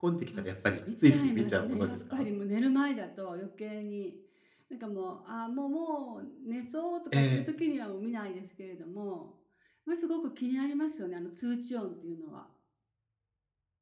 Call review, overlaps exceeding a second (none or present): present